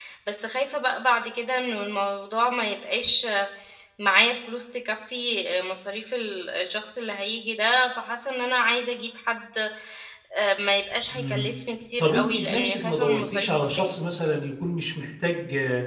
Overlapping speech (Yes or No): Yes